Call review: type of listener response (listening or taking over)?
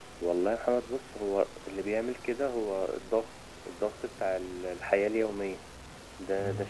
listening